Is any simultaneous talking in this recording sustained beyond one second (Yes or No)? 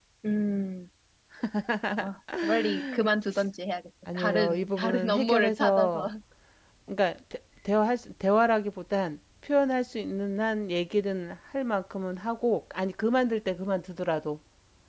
Yes